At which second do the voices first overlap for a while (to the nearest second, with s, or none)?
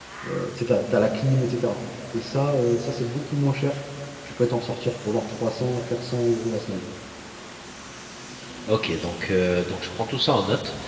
none